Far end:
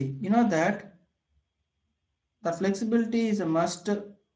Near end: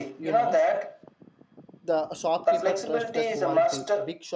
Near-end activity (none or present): present